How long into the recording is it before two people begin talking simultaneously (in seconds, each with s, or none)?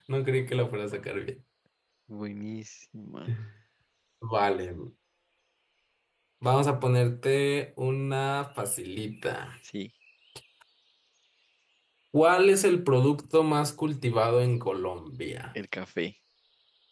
none